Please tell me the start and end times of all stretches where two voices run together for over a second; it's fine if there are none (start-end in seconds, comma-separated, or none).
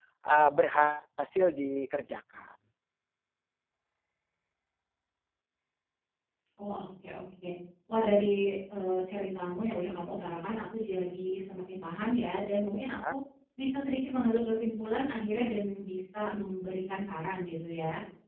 none